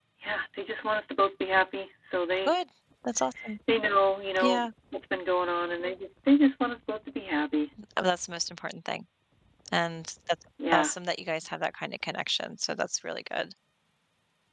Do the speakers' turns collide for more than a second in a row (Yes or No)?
No